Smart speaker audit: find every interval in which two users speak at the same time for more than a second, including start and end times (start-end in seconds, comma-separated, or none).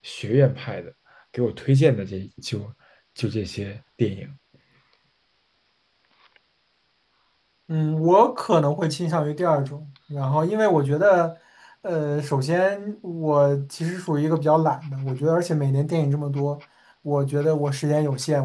none